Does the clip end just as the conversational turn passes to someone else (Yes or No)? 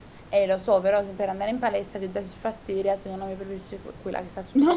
Yes